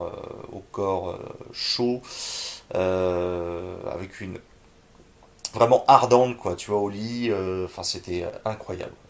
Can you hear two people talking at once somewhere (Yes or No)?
No